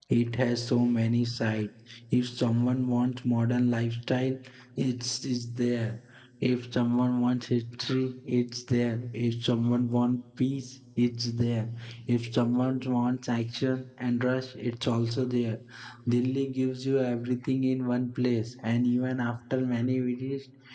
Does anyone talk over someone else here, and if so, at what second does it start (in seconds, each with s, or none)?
none